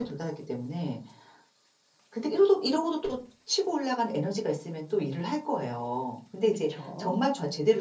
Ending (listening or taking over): listening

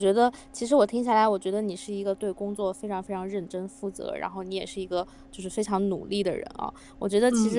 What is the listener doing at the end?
listening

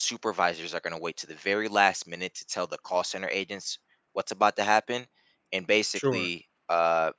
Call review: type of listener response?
listening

